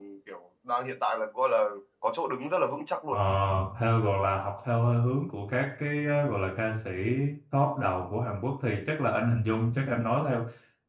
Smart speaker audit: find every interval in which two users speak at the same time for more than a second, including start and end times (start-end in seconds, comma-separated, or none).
none